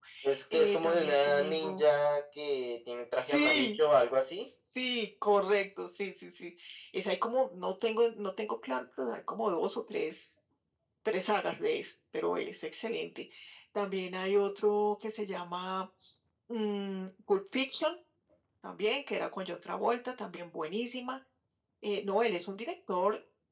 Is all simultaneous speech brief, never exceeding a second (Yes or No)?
No